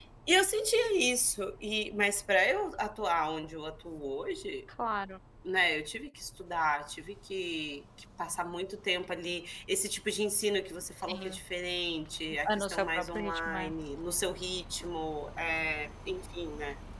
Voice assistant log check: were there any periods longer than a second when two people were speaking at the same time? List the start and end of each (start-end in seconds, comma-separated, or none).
12.5-13.7